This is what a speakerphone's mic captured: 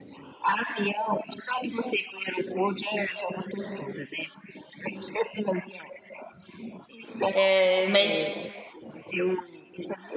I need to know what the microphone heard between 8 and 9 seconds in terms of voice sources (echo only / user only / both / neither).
both